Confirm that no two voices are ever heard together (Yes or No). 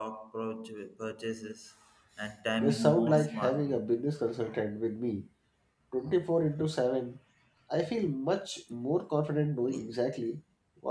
No